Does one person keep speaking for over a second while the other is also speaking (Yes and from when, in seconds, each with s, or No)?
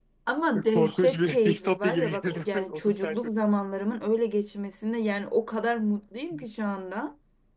Yes, from 0.7 s